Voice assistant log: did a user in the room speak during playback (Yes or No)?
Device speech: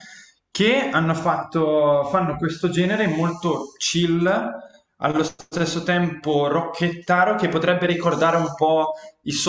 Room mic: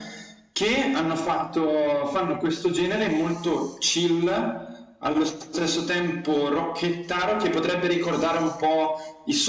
No